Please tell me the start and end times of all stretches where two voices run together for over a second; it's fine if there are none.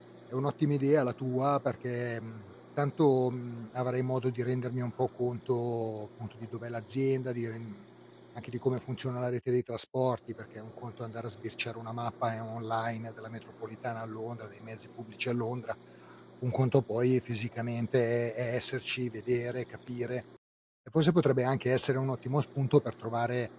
none

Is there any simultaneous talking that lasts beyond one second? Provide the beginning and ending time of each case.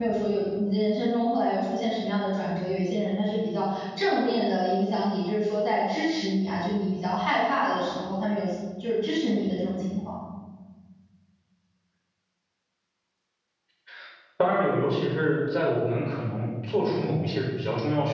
none

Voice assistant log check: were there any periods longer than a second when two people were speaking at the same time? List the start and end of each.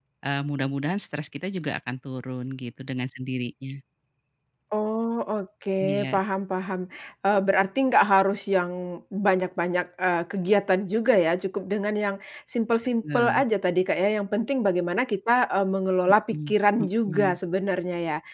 none

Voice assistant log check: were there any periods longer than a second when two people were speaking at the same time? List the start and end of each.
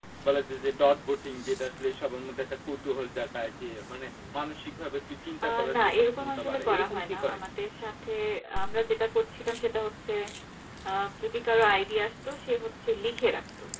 5.4-7.5

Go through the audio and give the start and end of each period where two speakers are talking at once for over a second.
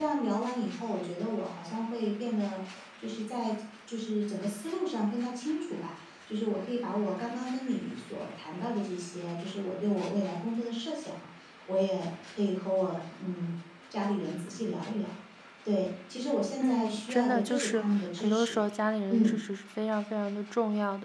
16.6-18.6

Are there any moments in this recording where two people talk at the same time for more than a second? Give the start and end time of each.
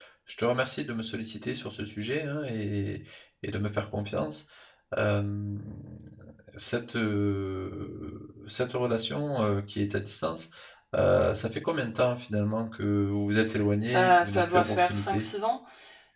13.8-15.3

